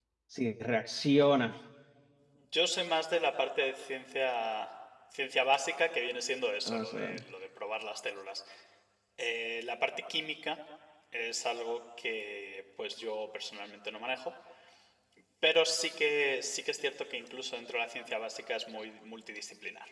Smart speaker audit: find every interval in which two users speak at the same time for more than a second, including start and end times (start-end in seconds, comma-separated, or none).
none